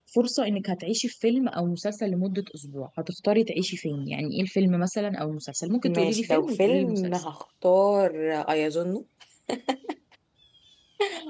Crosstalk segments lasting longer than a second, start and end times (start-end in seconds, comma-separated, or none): 5.8-7.2